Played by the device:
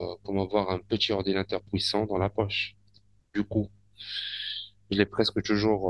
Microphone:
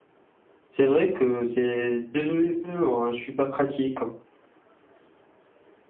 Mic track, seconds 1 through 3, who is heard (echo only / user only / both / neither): user only